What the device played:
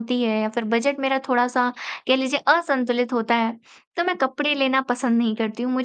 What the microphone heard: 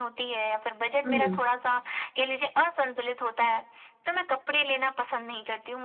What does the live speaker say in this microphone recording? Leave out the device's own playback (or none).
हम्म